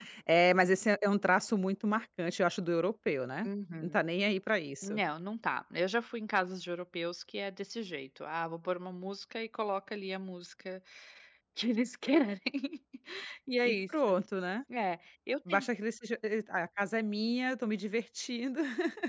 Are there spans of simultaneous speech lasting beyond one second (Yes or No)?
No